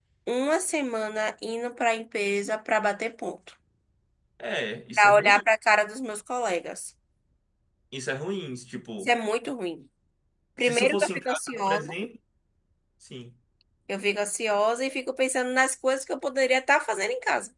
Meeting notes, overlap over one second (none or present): present